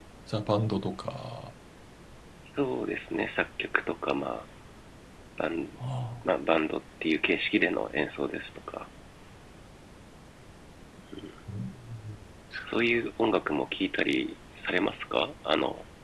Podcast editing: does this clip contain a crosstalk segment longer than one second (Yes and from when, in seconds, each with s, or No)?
No